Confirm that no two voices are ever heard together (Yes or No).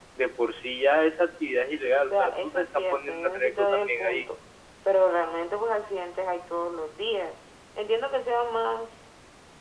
No